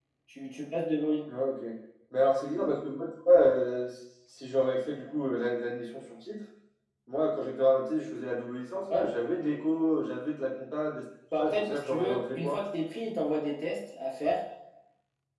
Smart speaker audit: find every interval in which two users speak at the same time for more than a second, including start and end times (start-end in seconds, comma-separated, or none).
11.4-12.6